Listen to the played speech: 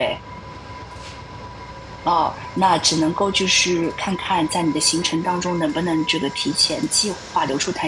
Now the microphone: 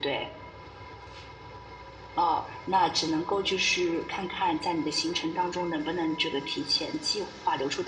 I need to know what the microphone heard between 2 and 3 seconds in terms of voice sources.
echo only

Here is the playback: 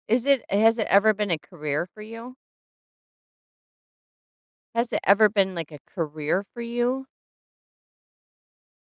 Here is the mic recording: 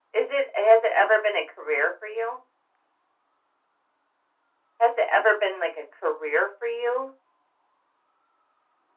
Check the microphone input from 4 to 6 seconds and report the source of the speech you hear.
echo only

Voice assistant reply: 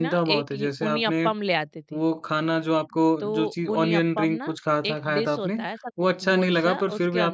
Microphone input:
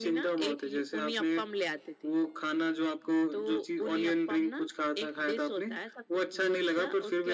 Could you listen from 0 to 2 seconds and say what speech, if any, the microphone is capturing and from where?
echo only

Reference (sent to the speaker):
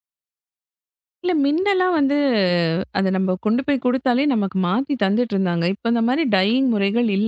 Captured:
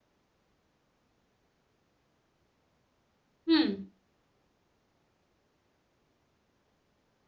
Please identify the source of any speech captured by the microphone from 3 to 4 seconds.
user only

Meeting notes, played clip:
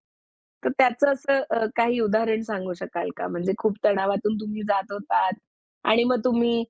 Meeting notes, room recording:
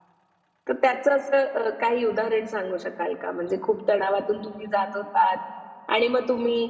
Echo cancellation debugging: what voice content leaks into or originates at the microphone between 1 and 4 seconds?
echo only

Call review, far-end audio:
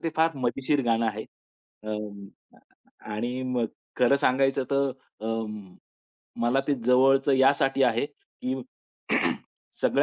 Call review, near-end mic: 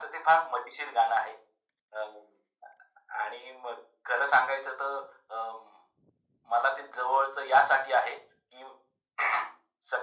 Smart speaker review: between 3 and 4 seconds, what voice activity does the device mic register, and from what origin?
echo only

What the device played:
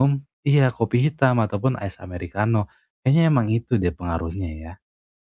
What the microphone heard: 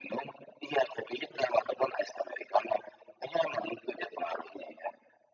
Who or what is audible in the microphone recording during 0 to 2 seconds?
echo only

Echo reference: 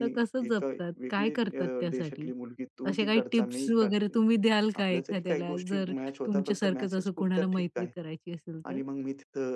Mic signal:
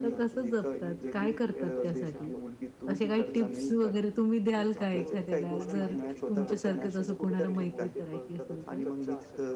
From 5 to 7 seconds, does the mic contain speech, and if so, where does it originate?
both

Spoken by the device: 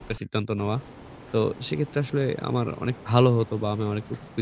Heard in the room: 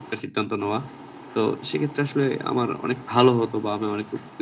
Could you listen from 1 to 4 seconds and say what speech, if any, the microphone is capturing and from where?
echo only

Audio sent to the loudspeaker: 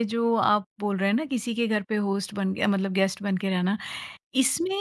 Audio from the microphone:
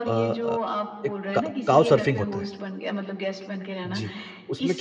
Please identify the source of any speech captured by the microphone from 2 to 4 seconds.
both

